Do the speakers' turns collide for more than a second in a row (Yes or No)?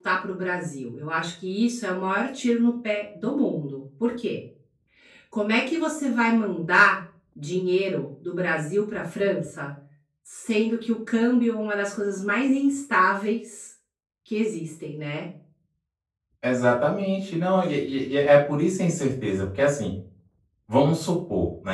No